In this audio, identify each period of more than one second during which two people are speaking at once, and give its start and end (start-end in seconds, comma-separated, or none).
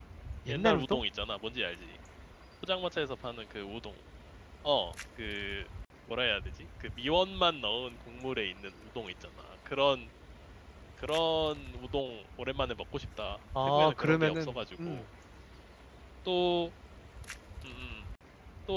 13.6-15.0